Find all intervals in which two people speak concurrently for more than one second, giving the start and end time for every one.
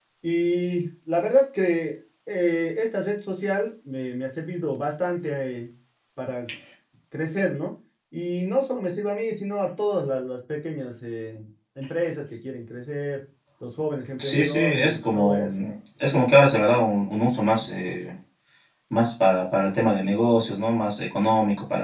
14.2-15.5

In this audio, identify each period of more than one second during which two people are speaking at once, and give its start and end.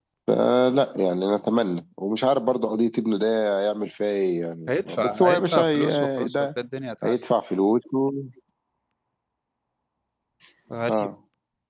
4.7-6.5

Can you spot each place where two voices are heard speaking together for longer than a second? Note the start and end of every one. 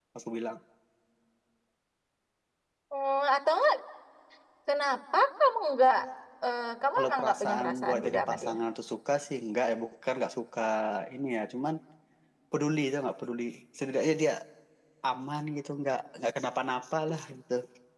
7.0-8.5

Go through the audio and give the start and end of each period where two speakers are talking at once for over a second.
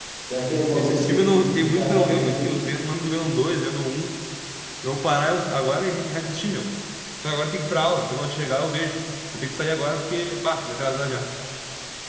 0.7-2.5

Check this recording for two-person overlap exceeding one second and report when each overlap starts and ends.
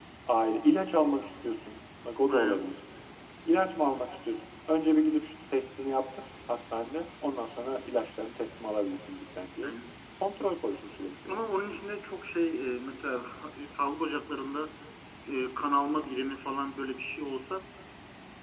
none

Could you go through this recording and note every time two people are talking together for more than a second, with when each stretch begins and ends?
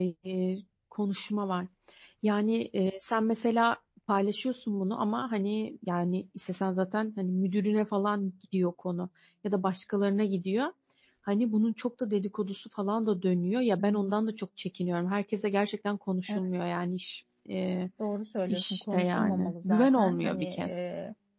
18.5-20.8

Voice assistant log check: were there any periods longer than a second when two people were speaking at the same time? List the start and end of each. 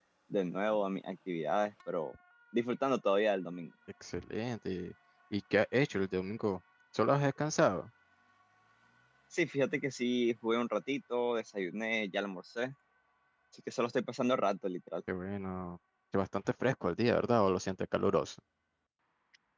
none

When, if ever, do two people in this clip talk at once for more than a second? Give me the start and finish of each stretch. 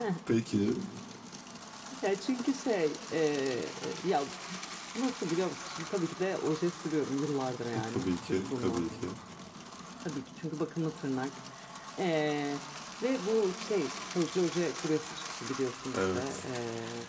7.7-9.0

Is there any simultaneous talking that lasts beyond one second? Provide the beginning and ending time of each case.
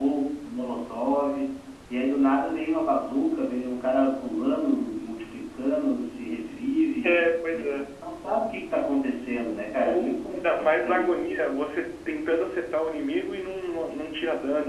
9.8-11.2

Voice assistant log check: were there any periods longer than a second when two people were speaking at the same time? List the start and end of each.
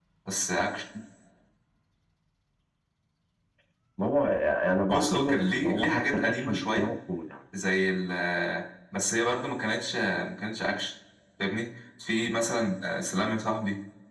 4.9-6.9

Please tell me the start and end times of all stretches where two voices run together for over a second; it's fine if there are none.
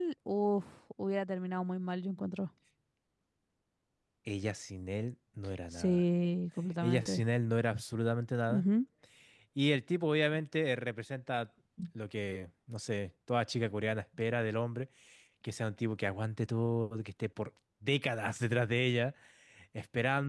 none

